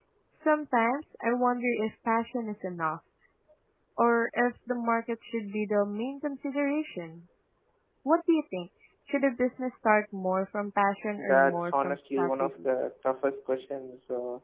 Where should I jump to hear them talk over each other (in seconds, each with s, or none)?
11.2 s